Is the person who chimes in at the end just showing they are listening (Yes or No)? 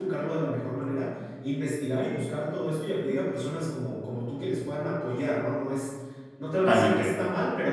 Yes